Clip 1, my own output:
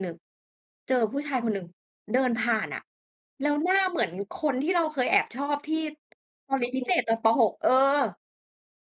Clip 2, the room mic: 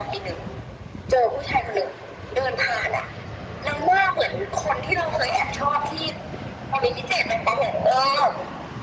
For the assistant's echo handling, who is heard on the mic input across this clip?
echo only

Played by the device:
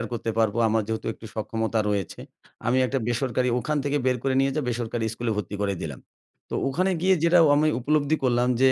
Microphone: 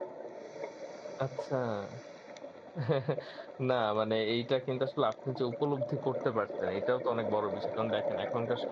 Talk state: user only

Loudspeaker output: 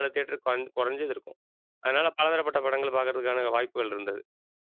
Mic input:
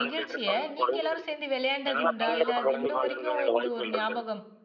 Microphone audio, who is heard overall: both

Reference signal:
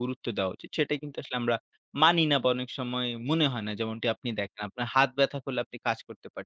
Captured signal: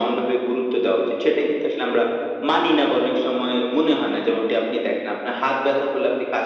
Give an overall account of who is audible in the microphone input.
echo only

